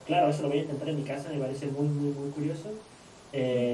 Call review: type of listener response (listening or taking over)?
taking over